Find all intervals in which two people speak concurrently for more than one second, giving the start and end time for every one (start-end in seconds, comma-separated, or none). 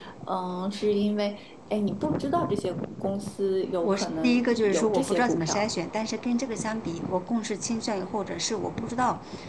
3.8-5.6